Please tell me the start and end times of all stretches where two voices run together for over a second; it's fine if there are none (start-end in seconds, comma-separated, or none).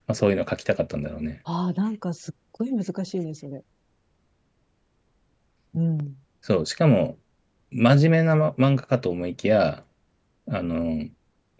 none